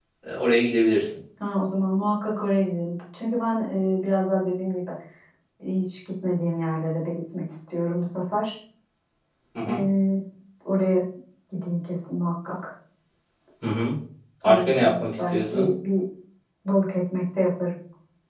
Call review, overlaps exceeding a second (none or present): present